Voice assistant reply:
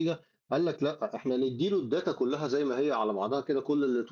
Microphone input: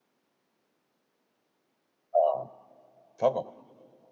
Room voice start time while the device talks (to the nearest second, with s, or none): 2 s